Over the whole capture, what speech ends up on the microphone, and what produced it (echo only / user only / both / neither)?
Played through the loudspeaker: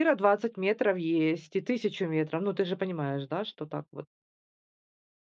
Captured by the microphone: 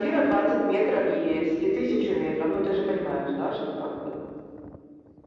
echo only